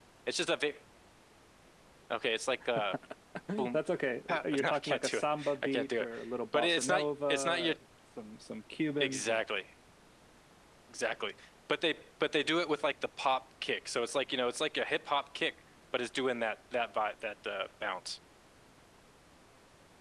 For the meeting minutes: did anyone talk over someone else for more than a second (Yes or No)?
Yes